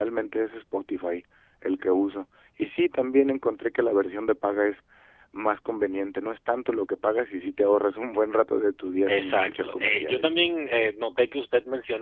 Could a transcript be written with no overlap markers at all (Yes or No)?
No